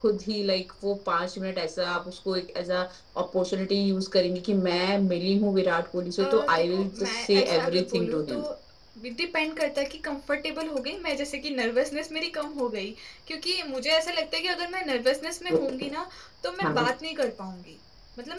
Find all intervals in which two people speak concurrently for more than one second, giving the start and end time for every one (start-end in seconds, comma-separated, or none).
6.2-8.4